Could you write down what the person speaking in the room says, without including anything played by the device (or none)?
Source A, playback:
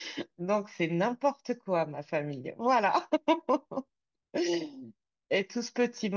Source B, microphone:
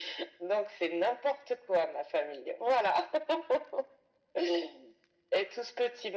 none